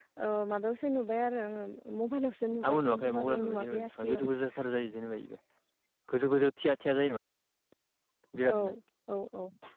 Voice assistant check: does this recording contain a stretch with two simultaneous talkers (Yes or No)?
Yes